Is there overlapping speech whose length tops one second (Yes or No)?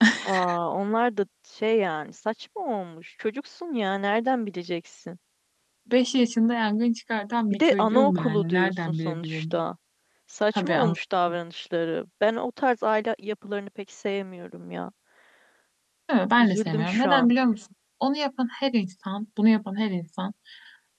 Yes